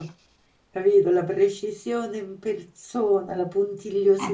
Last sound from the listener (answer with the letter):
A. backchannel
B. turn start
B